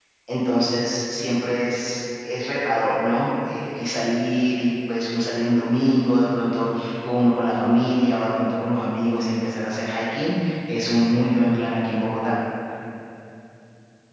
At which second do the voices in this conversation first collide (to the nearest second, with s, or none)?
none